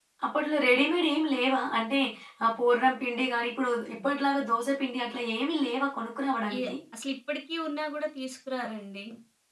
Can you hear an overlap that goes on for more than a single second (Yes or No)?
No